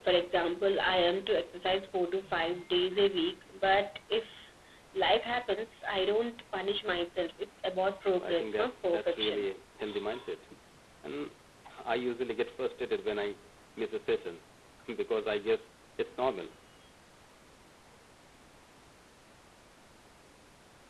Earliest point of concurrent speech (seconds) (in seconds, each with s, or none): 8.2 s